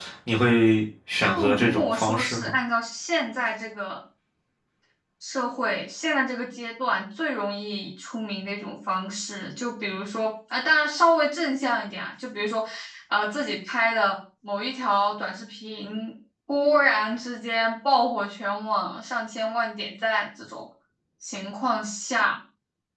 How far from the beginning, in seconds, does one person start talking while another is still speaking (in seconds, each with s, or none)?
1.2 s